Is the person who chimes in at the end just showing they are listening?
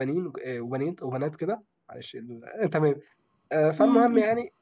Yes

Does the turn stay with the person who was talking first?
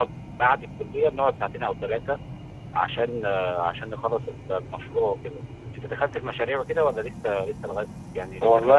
No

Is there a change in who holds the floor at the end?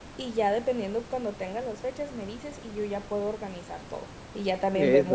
No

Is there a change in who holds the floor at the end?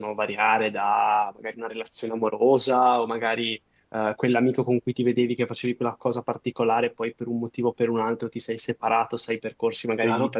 No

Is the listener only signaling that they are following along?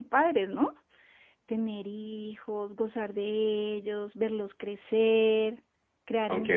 No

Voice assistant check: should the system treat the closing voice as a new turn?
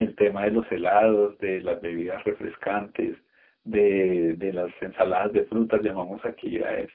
No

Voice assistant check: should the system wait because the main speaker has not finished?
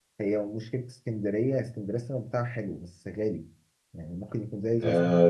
No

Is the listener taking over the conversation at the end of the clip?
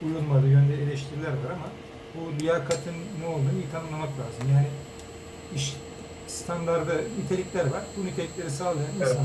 No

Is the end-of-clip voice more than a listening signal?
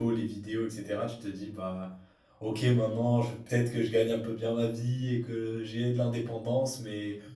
No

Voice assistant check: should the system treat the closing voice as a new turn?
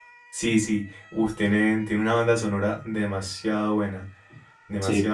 Yes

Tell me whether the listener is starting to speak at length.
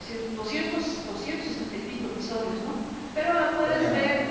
No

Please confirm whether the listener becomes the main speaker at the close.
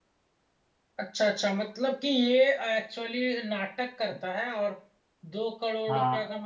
No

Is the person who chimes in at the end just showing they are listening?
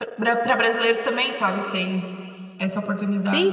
No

